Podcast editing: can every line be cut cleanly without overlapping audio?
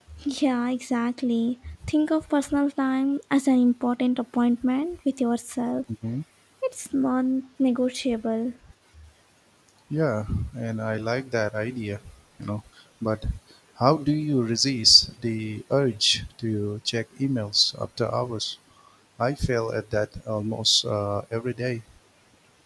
Yes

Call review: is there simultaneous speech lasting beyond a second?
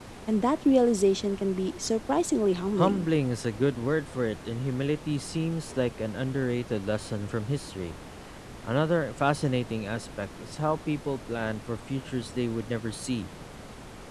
No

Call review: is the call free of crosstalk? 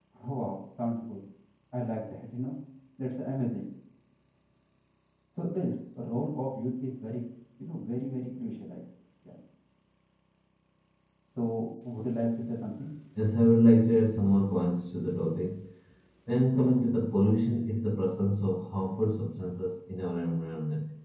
Yes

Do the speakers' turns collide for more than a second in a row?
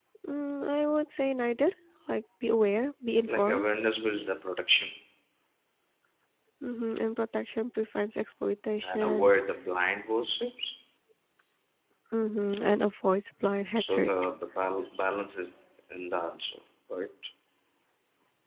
No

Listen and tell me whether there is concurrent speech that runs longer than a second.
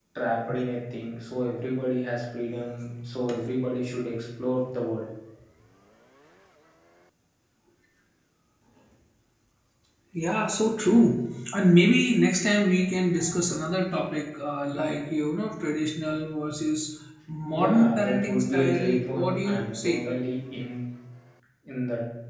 Yes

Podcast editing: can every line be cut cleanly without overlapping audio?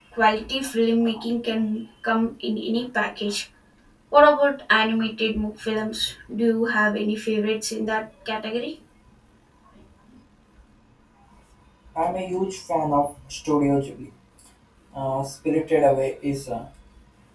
Yes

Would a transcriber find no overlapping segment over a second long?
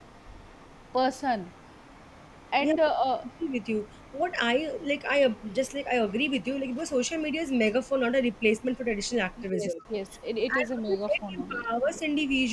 No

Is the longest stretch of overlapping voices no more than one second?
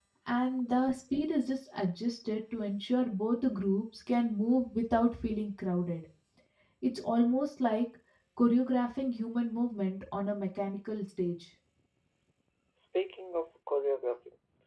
Yes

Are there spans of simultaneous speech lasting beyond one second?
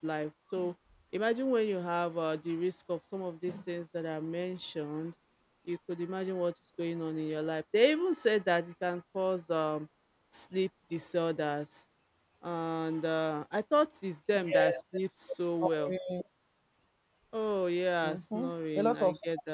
Yes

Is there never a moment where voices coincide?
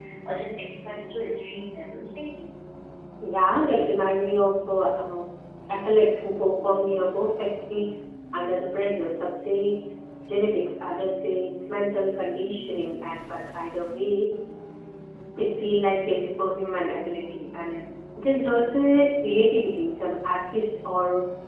Yes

